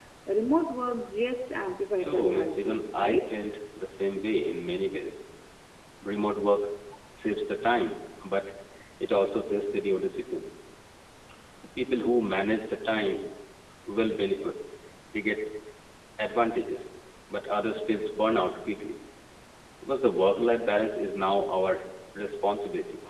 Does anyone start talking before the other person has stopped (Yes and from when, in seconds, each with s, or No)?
Yes, from 2.0 s